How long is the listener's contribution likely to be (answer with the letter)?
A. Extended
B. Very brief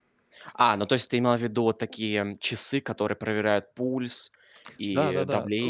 A